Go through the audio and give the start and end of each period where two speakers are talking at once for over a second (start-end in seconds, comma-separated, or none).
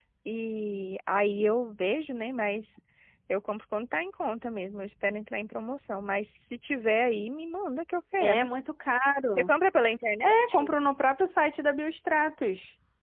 none